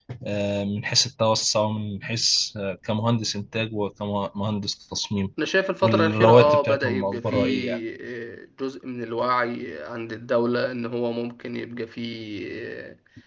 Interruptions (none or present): present